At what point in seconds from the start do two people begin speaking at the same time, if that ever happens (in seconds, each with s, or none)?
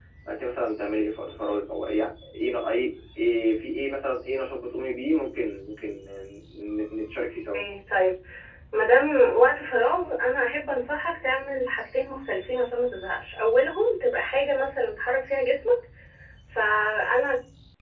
none